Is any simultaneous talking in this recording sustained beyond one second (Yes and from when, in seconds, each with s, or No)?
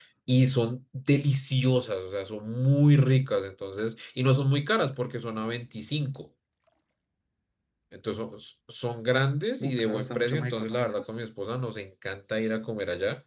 Yes, from 9.6 s